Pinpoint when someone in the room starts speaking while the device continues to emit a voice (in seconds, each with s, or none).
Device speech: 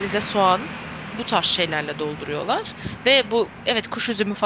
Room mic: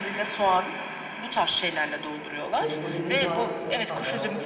2.5 s